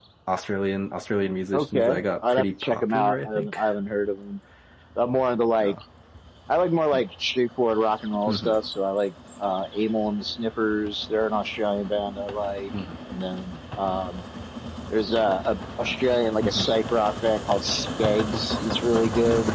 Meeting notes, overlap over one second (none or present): present